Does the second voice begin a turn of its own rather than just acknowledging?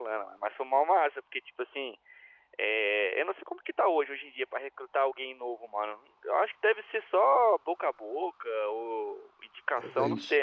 No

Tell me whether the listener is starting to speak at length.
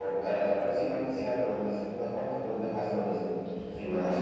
Yes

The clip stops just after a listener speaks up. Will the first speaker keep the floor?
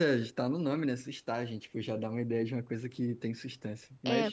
Yes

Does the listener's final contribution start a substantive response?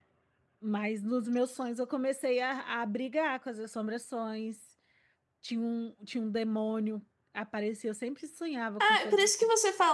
Yes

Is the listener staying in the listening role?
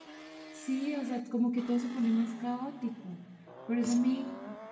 Yes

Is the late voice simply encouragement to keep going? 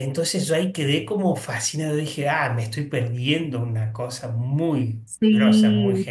No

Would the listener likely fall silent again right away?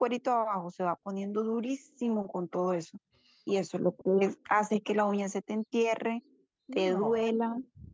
Yes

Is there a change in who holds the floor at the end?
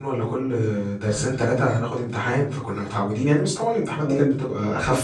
Yes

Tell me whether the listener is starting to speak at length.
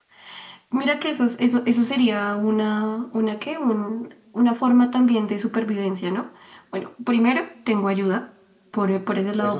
No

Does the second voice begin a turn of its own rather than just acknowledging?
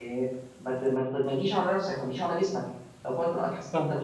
Yes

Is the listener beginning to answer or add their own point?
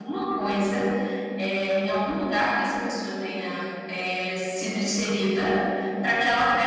No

